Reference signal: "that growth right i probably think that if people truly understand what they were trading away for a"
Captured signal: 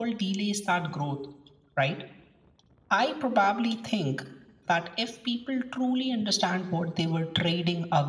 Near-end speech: none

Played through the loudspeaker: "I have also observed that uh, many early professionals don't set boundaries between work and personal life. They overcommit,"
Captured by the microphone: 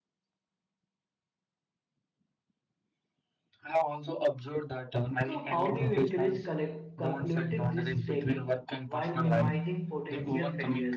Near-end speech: present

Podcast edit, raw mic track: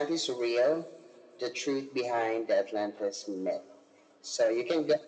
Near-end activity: none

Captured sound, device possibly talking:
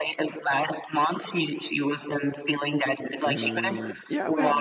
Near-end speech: present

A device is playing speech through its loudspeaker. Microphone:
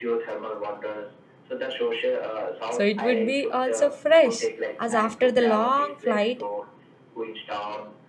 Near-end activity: present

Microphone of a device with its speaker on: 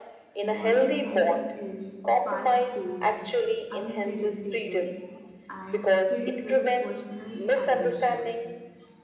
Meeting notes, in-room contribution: present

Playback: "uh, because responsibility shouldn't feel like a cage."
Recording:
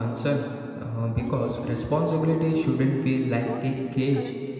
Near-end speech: present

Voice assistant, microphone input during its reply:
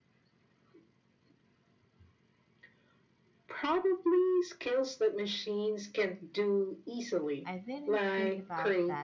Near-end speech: present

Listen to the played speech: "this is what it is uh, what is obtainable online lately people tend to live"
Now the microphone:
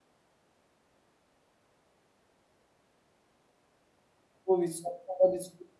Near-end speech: present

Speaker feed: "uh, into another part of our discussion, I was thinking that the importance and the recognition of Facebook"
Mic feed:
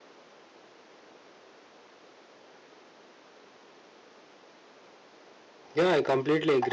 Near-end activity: present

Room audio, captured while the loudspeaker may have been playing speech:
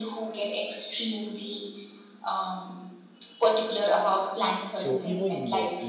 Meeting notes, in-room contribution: present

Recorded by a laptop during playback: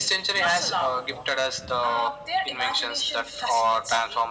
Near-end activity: none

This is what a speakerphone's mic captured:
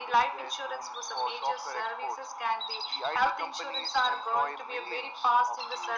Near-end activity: none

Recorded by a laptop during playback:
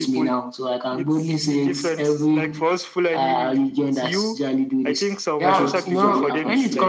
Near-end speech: present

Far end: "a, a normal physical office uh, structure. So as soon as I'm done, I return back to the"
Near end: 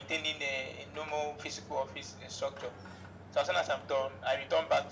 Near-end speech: none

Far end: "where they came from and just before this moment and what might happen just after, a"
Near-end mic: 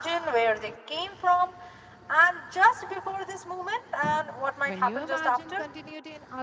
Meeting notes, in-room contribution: present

